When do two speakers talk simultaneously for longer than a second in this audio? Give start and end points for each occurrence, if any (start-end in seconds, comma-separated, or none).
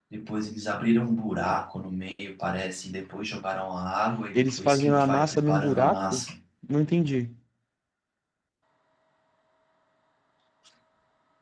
4.3-6.2